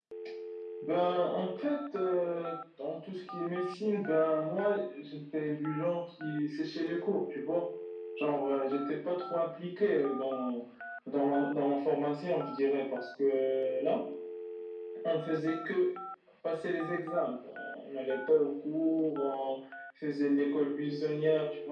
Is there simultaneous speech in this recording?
No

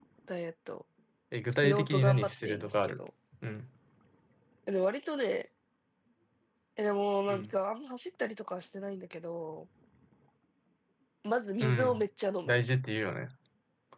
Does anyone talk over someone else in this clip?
Yes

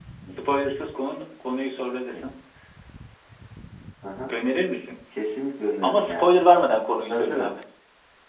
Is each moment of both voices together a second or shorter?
Yes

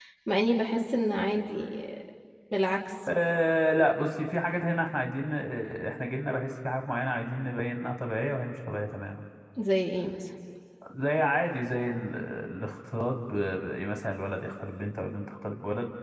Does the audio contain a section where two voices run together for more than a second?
No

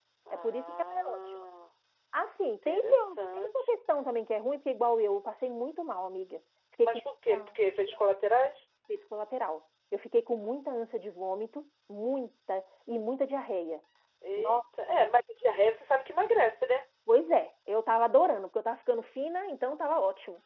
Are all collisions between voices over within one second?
No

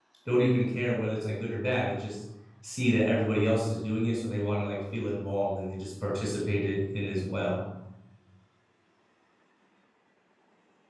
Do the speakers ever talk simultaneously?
No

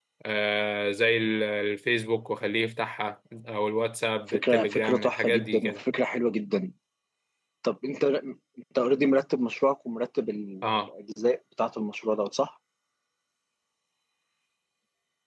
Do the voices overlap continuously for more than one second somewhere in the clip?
Yes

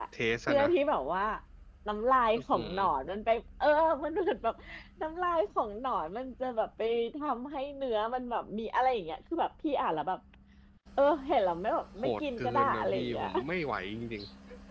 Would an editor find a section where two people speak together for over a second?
Yes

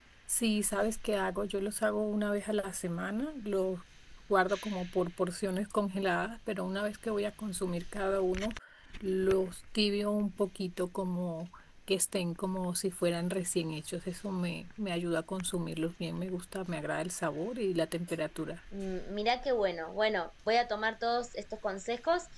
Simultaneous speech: No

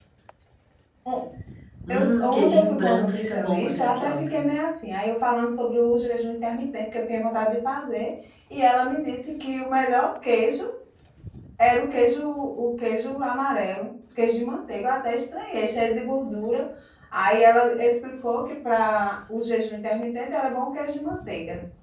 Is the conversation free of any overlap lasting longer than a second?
No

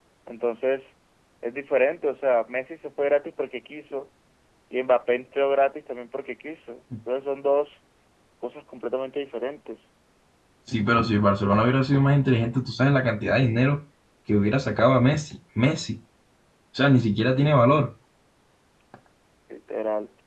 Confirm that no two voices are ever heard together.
Yes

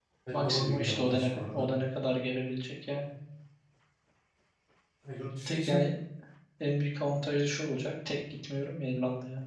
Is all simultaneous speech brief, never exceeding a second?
No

